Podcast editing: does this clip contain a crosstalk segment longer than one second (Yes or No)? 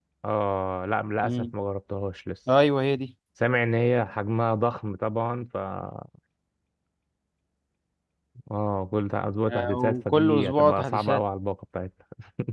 Yes